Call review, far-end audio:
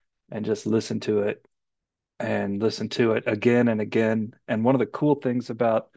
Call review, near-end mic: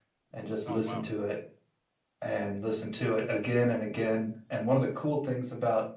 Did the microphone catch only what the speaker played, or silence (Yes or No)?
No